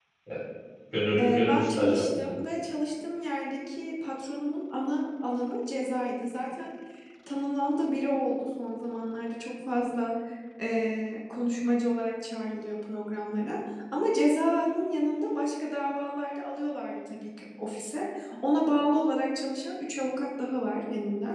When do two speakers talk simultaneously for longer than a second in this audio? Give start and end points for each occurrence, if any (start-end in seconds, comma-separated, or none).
1.2-2.4